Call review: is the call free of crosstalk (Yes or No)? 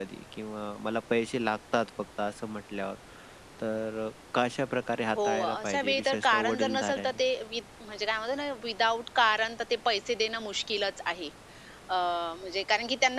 No